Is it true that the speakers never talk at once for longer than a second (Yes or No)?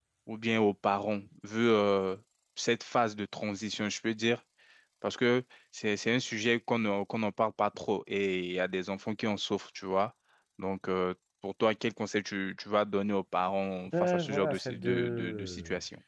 No